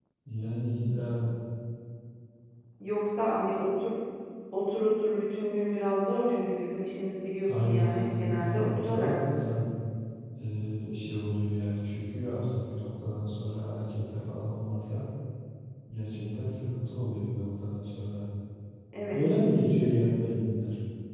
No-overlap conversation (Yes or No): No